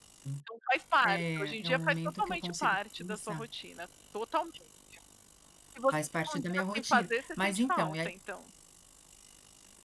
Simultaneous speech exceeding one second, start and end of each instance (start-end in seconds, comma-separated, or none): 1.0-3.4, 5.9-8.1